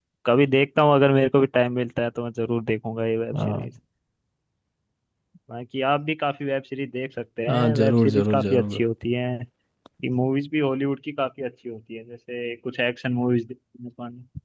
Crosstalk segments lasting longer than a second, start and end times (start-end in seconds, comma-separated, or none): 7.5-8.8